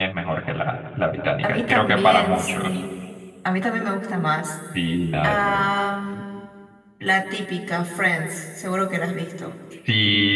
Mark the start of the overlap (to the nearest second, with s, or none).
1 s